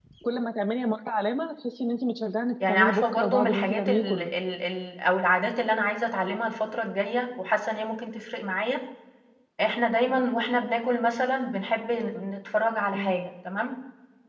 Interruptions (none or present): present